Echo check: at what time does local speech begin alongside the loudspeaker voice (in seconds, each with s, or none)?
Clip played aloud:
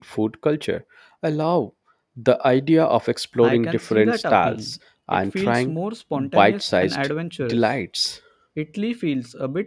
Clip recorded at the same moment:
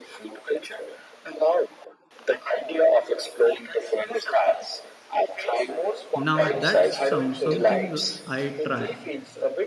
6.2 s